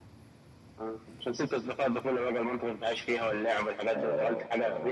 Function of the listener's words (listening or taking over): taking over